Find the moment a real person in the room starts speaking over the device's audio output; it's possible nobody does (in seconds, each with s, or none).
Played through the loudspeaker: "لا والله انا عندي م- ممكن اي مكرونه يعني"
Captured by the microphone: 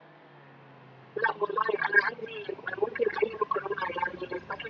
none